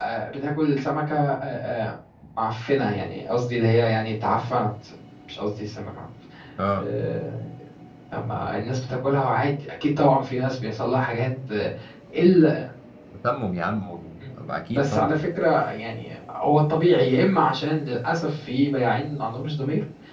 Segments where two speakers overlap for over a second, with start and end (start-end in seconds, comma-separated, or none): none